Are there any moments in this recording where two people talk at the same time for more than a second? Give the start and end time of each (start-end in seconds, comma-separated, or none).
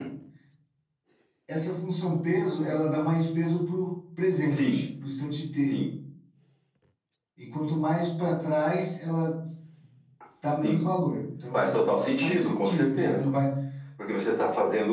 11.5-13.2